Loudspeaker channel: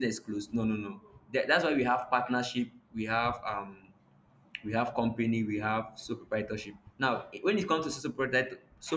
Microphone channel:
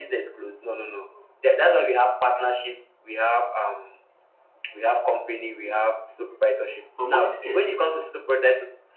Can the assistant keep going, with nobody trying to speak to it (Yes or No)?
No